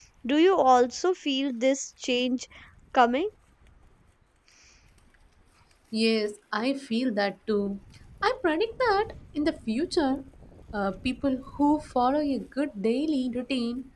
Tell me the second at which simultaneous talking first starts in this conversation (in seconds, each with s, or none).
none